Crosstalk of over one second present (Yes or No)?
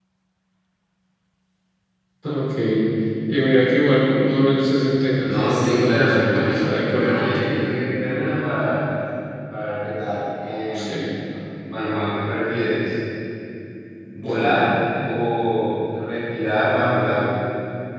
Yes